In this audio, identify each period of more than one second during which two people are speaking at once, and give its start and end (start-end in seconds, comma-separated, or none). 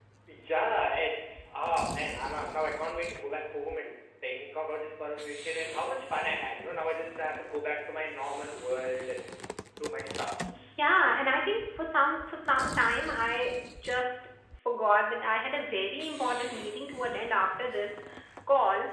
none